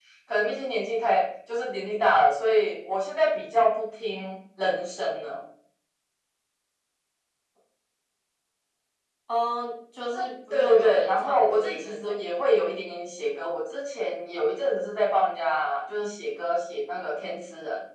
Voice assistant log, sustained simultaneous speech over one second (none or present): present